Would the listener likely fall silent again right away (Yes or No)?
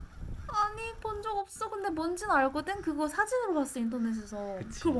No